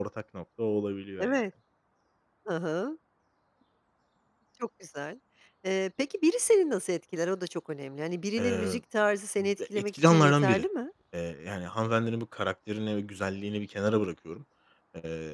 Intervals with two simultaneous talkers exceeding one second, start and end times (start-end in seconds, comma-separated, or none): 9.4-10.6